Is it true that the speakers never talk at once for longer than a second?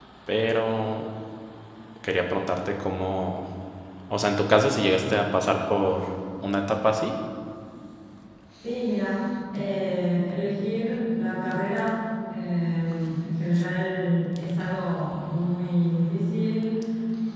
Yes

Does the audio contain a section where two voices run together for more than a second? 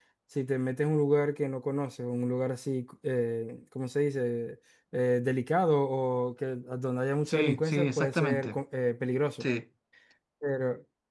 Yes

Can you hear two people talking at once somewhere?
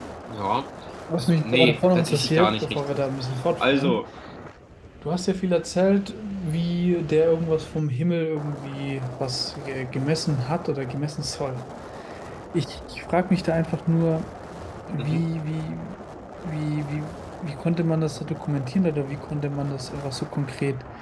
Yes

